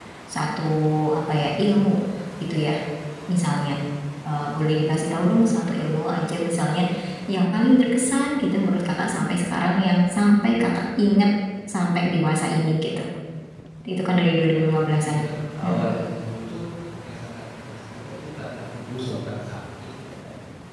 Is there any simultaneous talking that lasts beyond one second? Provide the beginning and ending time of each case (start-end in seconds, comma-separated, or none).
14.0-15.2